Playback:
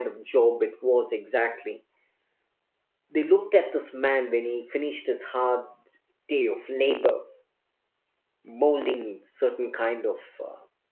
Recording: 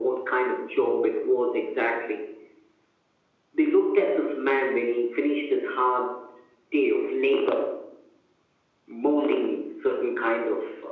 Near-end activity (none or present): none